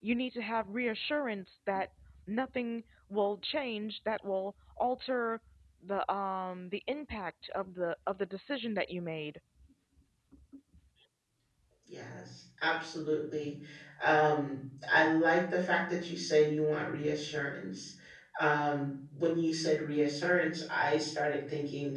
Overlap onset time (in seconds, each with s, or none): none